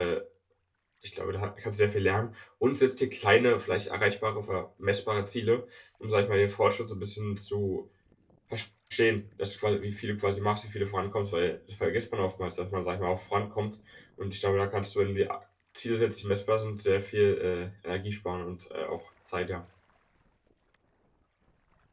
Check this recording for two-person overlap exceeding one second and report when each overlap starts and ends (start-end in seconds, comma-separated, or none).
none